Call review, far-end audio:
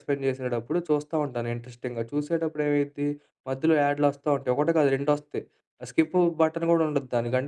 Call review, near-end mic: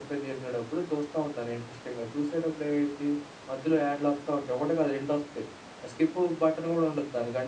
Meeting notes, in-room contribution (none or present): none